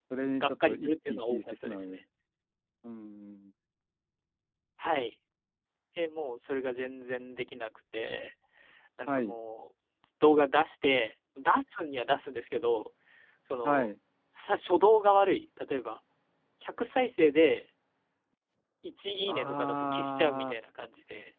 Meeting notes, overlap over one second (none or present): present